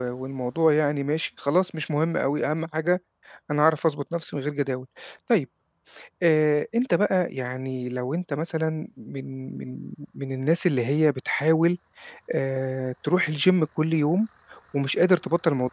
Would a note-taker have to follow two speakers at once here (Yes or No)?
No